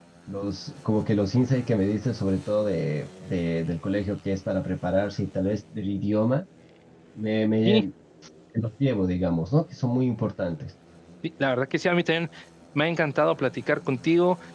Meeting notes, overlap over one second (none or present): none